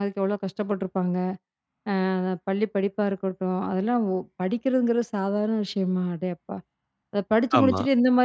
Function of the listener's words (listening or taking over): listening